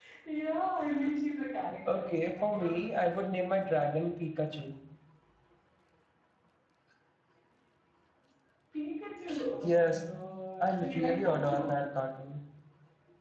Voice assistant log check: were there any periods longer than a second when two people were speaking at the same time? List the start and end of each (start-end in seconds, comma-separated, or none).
1.9-3.3, 10.6-11.8